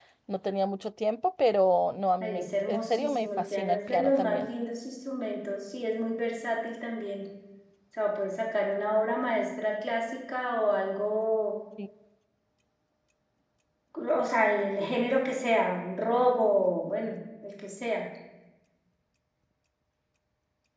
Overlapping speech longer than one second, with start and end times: 2.2-4.5

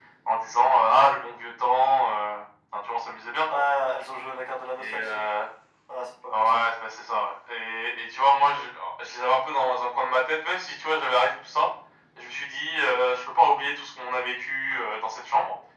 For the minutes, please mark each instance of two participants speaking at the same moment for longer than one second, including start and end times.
none

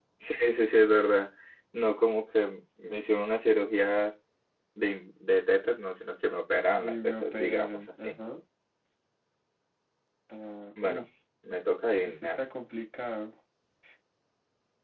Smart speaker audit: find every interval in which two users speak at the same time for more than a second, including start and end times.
6.8-8.2

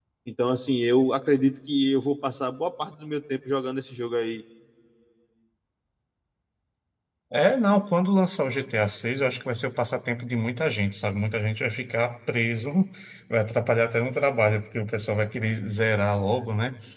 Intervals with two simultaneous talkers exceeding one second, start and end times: none

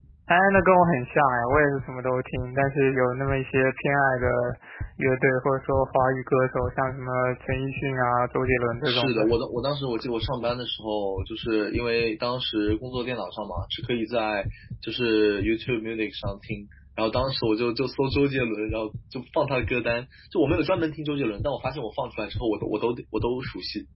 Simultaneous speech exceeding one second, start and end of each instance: none

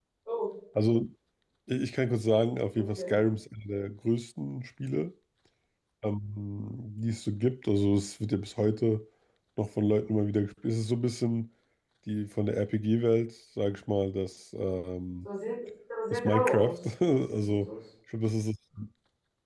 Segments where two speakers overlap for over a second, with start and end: 16.1-17.7

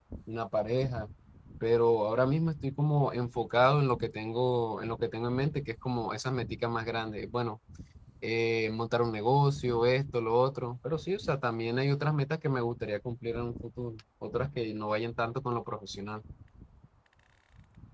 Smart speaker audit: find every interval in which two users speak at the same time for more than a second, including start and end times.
none

